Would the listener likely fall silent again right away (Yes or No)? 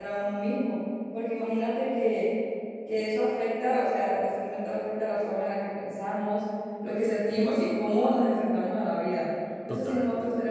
Yes